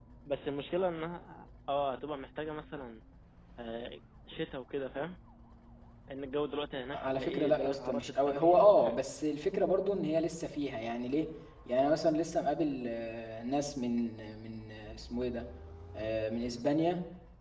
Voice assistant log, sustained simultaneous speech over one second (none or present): present